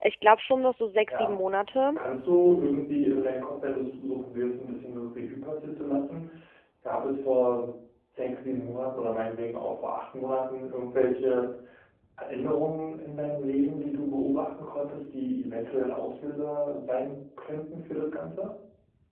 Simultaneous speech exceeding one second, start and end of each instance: none

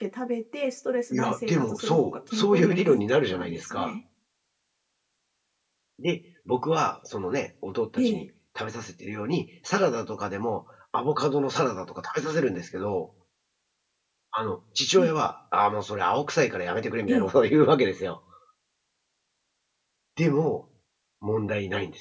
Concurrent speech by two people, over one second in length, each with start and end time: 1.1-3.9

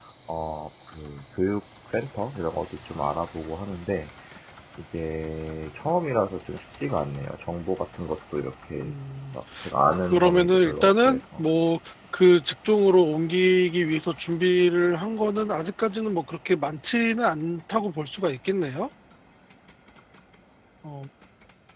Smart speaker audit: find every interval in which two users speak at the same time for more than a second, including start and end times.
9.9-11.4

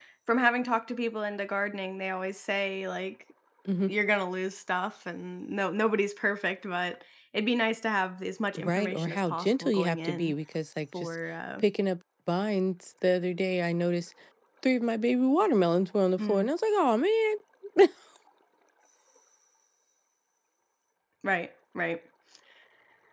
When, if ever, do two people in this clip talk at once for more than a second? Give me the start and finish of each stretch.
8.6-10.3

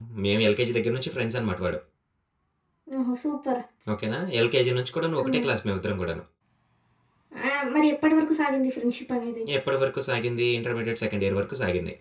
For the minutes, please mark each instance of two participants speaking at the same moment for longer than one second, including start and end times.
none

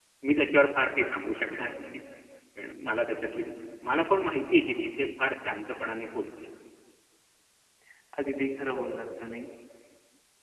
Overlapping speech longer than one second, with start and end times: none

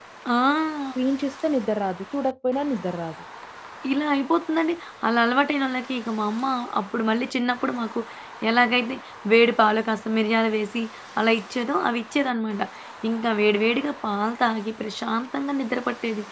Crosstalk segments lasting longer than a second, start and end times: none

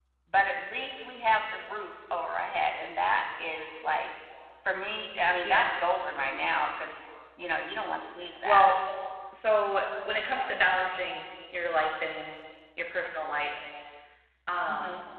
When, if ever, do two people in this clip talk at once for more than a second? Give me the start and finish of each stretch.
none

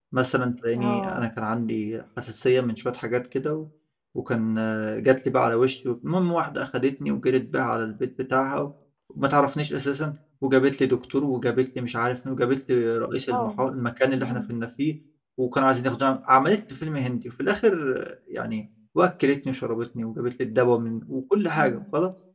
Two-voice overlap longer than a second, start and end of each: none

